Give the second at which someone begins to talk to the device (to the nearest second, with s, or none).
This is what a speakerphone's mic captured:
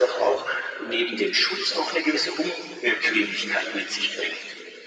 none